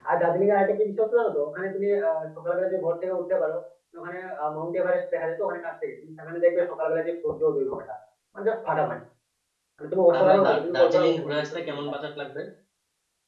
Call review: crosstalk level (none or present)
present